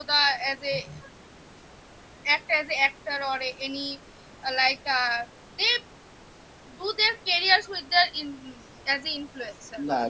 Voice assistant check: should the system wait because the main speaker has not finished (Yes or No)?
No